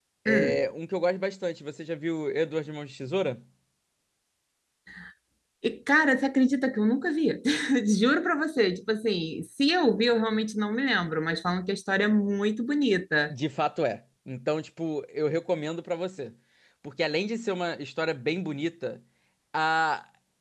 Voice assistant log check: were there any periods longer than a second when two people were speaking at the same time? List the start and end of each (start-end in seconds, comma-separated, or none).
none